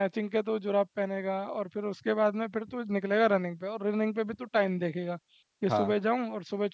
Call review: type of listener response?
listening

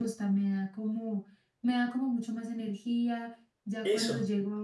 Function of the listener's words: listening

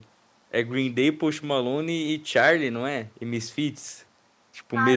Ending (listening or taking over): taking over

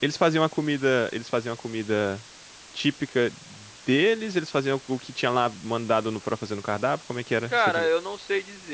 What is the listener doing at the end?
taking over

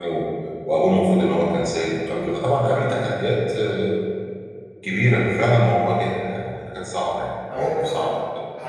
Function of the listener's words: taking over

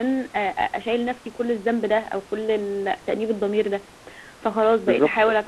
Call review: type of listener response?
listening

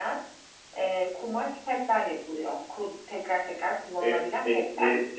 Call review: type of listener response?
taking over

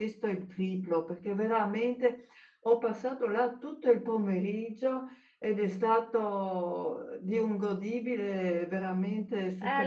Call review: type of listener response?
taking over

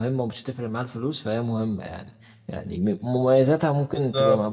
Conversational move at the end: listening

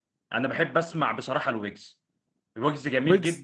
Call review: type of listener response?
listening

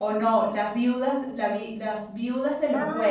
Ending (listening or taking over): taking over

